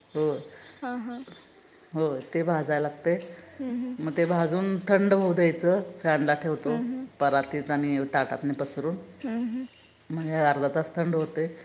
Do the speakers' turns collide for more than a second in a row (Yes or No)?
No